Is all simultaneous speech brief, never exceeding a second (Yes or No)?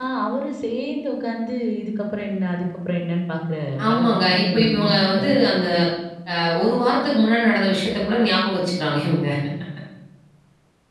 No